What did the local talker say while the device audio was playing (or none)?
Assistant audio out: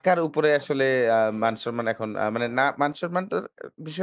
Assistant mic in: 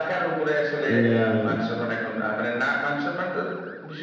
উম